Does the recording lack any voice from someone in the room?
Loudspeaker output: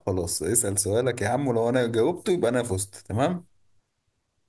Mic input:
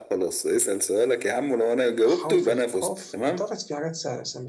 No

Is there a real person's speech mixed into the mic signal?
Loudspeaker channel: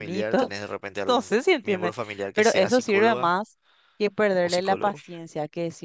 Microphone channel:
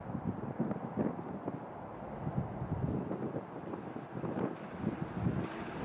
No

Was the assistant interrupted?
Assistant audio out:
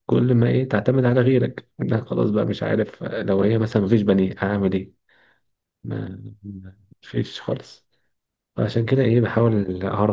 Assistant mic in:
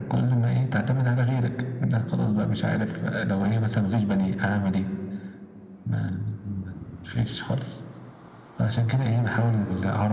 No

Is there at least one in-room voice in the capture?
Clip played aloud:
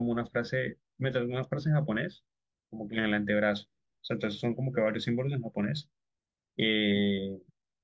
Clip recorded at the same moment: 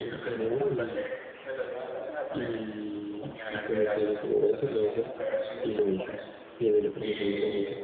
Yes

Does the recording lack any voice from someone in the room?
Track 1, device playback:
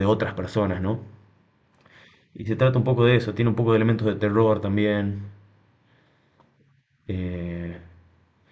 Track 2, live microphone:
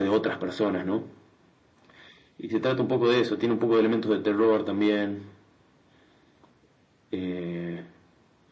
Yes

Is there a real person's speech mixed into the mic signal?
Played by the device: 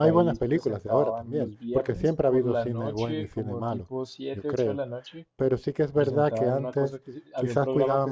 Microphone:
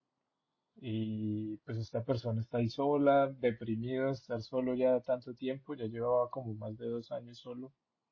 Yes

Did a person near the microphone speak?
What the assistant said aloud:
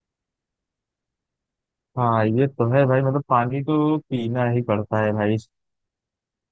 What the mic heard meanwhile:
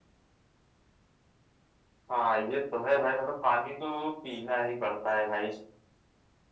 No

